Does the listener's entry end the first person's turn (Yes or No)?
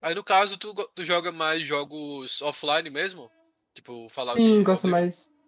Yes